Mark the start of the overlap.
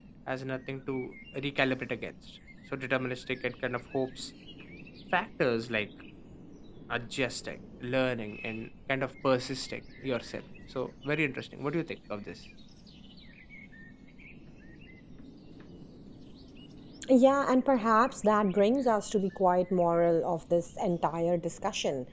none

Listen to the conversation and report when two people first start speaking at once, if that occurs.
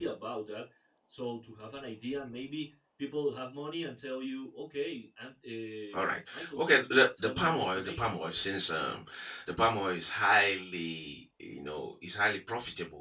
6 s

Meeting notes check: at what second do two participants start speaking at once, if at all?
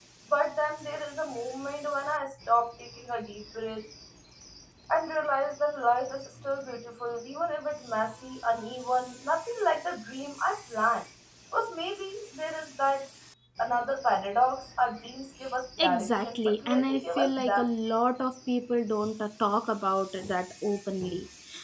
16 s

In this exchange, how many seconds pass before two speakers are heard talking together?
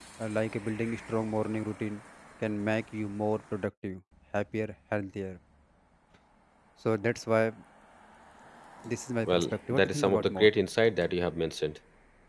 9 s

